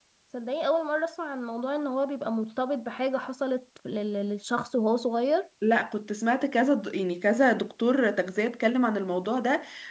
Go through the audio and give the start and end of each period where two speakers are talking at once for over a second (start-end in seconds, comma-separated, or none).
none